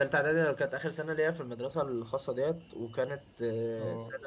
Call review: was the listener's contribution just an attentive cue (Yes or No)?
Yes